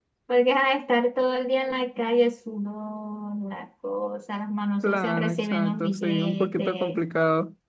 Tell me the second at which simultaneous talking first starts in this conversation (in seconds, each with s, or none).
4.8 s